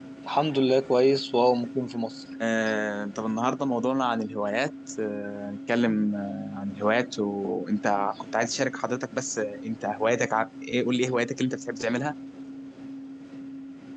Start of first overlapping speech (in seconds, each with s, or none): none